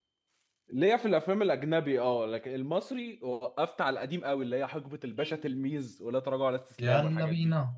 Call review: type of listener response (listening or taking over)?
taking over